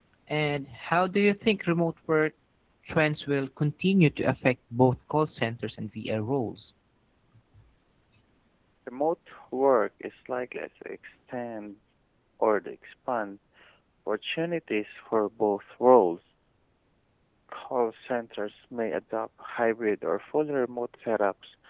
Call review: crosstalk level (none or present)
none